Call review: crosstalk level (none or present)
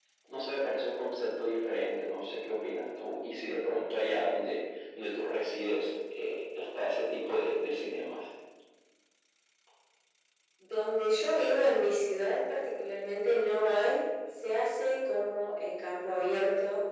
none